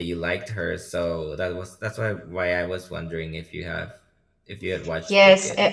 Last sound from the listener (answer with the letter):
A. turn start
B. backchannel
A